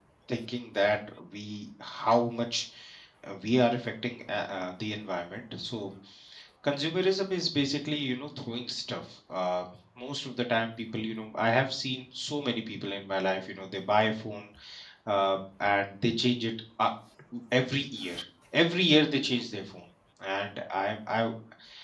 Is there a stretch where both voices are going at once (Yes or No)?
No